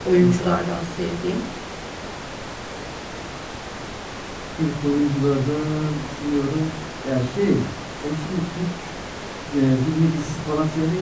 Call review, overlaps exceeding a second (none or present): none